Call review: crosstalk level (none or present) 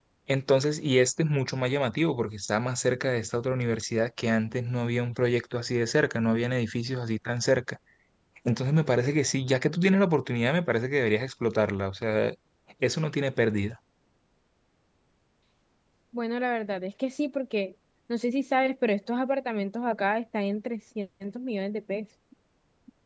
none